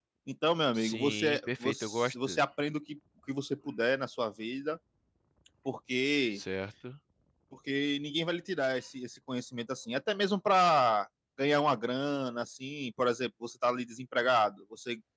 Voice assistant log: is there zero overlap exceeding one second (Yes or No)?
No